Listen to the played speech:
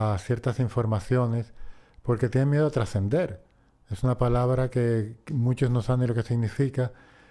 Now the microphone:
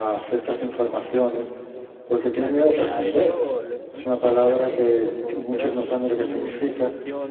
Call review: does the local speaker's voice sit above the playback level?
No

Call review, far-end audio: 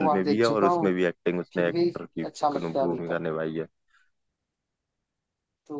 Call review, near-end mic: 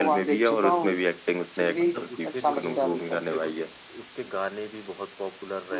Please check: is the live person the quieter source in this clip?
Yes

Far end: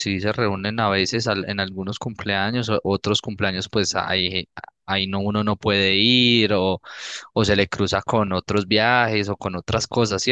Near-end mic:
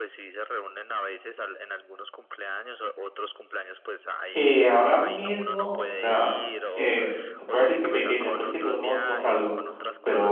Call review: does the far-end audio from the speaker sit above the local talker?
No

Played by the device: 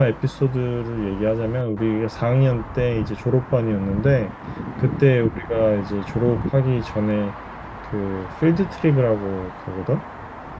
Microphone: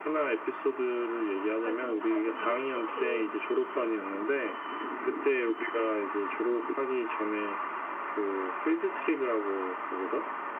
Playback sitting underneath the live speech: No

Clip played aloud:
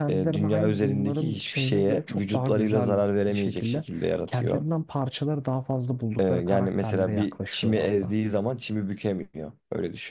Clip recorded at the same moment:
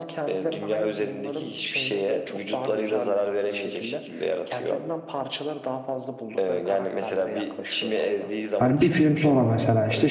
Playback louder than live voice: No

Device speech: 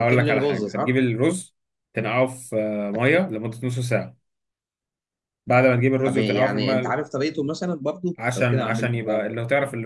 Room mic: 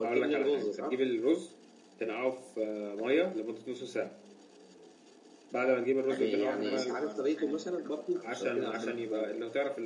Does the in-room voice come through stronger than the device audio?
No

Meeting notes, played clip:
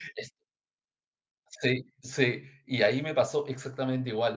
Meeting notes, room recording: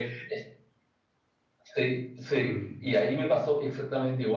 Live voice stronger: No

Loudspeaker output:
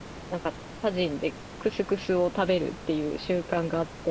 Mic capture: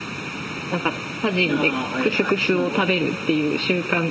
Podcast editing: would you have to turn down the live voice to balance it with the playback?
No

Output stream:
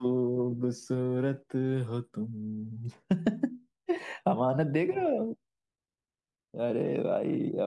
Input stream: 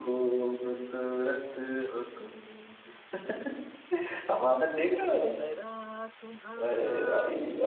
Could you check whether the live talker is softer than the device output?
Yes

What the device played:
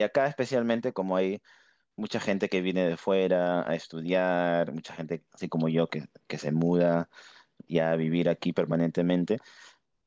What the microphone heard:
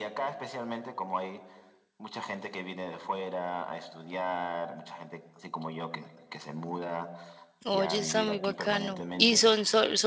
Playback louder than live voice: No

